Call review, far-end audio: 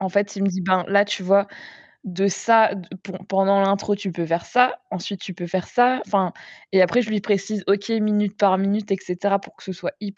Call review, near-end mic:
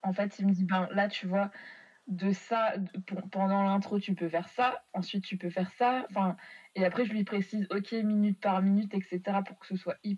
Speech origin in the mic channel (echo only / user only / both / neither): echo only